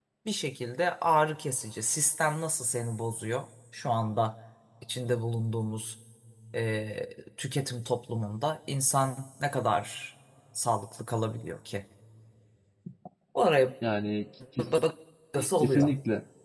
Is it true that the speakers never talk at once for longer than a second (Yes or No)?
Yes